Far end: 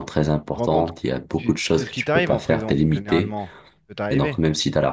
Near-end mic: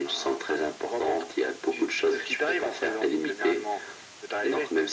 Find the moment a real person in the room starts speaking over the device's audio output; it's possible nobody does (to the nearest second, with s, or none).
none